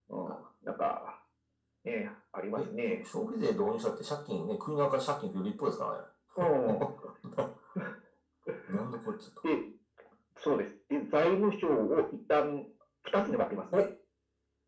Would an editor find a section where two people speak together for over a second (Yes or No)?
No